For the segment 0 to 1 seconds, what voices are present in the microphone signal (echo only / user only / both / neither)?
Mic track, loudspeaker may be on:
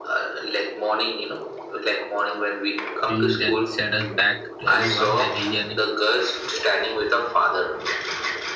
echo only